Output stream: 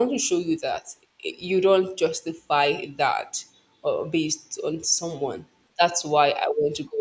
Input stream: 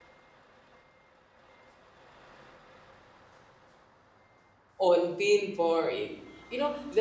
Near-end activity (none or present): present